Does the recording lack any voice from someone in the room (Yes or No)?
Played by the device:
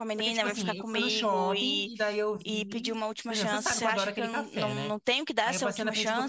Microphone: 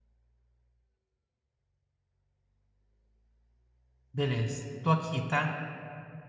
No